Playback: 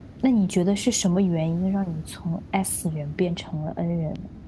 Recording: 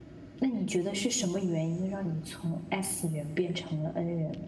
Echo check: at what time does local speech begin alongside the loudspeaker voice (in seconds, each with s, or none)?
none